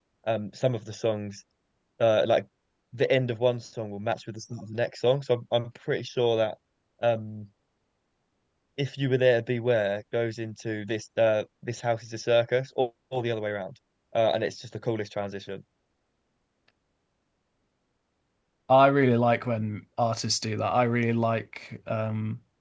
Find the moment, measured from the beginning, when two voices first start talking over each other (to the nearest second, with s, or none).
none